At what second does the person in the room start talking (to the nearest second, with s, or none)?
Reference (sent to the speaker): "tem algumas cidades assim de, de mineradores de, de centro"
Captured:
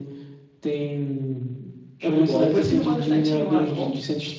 2 s